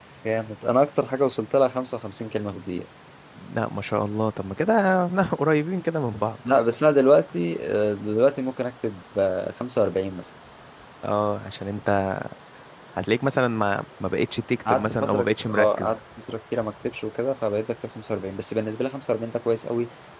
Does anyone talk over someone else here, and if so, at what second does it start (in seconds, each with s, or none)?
14.6 s